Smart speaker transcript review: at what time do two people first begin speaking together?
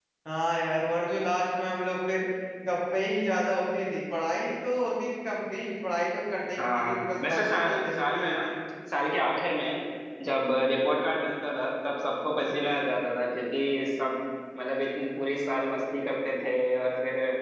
6.6 s

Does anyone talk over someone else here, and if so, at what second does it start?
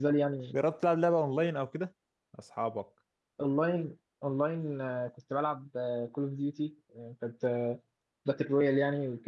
none

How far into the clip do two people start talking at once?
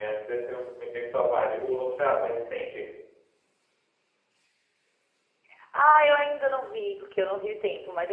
none

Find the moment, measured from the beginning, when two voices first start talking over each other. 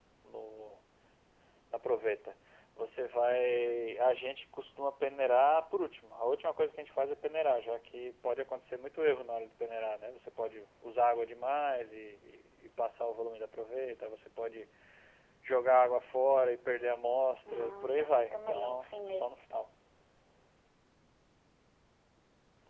17.5 s

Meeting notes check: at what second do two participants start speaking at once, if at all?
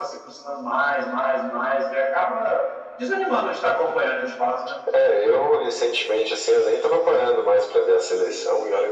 none

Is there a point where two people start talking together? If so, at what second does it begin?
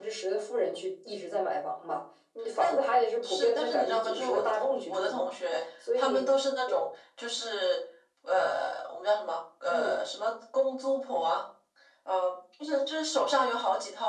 2.6 s

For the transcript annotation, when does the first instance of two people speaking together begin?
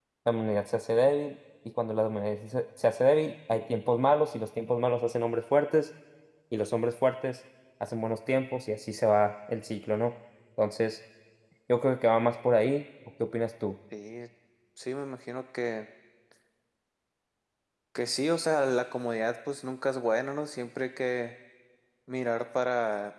none

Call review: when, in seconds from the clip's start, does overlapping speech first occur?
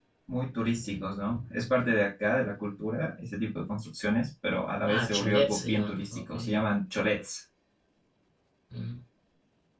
4.8 s

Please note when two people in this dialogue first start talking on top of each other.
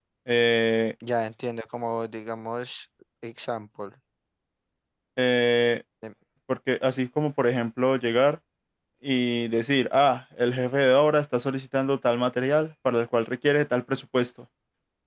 none

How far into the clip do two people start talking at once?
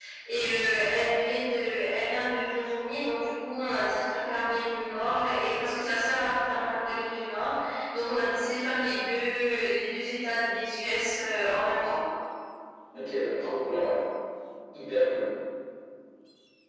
none

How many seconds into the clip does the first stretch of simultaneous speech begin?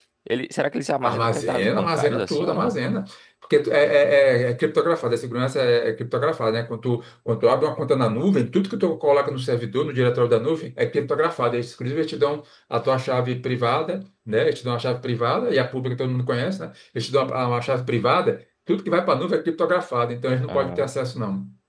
1.0 s

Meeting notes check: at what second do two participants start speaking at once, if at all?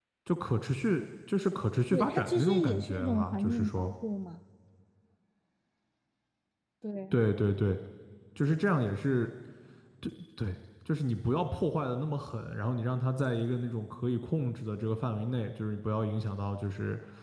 1.9 s

